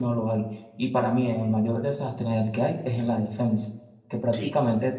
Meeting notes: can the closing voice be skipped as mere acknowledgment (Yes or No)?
Yes